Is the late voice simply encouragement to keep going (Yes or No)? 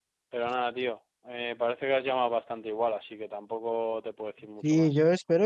No